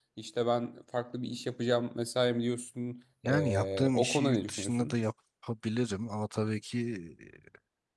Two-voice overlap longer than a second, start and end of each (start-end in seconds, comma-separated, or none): 3.2-5.0